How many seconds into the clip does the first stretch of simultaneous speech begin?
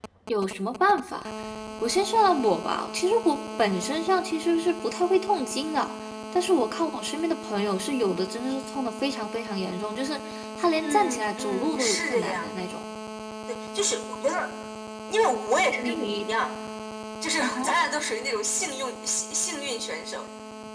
10.8 s

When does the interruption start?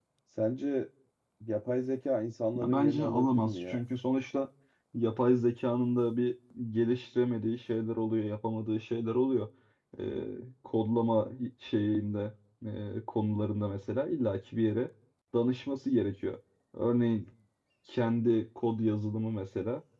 2.6 s

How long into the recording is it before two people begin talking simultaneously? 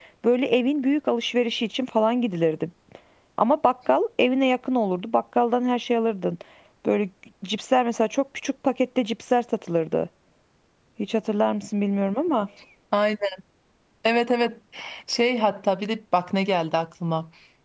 none

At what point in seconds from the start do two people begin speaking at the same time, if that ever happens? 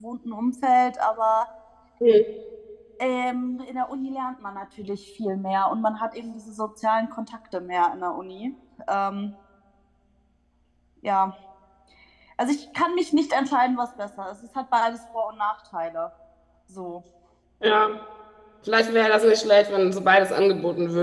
none

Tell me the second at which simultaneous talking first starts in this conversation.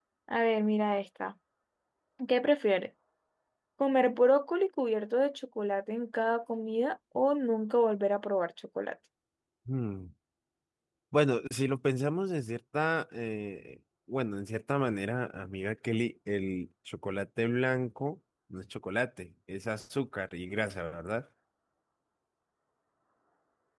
none

